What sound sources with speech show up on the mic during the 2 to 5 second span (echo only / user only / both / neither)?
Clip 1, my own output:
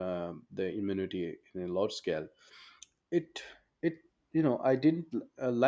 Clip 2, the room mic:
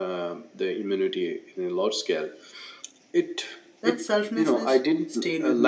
both